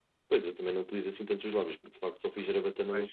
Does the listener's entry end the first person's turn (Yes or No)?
No